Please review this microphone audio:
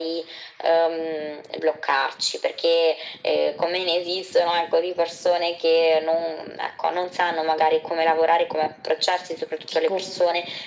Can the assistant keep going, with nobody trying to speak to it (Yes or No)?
No